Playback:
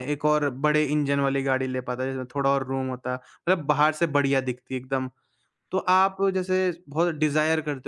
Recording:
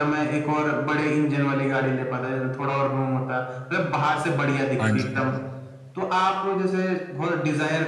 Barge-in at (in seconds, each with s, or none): 4.8 s